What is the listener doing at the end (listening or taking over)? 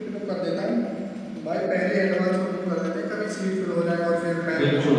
taking over